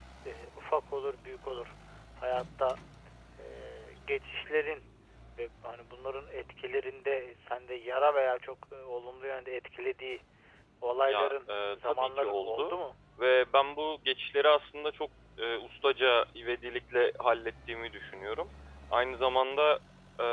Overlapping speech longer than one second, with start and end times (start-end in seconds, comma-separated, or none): 11.1-12.8